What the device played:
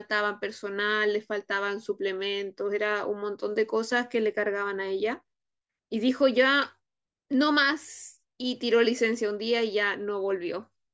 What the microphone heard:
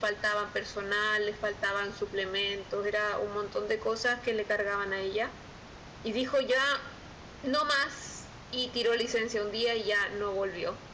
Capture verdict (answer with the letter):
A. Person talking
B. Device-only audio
B